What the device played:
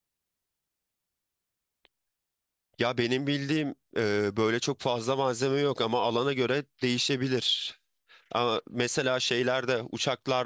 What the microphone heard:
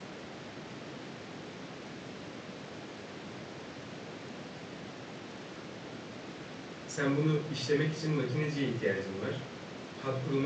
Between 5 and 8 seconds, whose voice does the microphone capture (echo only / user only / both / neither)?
user only